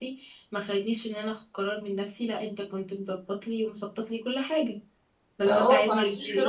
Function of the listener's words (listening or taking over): taking over